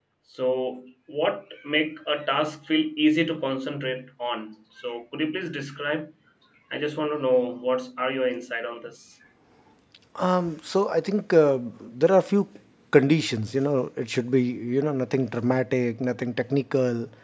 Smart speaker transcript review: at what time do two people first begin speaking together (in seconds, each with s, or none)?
none